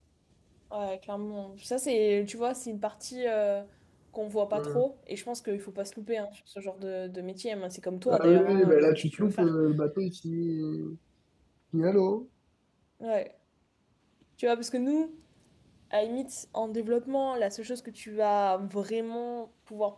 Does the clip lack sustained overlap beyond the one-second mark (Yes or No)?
No